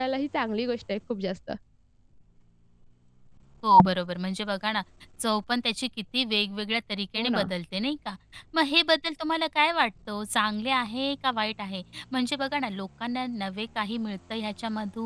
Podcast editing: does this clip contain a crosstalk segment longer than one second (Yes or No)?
No